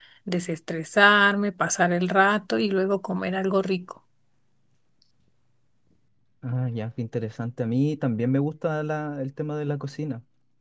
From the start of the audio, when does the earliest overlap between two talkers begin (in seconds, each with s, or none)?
none